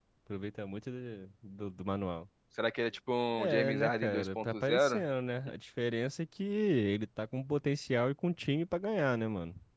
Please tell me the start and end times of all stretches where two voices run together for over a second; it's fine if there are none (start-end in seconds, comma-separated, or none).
3.4-5.0